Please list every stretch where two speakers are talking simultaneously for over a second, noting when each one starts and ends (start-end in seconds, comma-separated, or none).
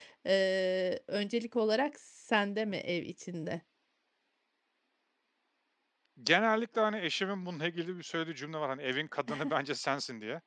none